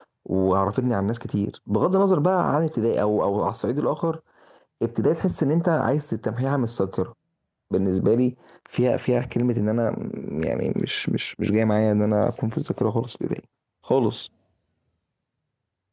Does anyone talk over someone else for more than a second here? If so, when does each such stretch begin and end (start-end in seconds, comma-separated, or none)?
none